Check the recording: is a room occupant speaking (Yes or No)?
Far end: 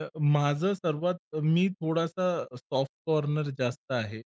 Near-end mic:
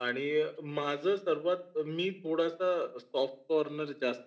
No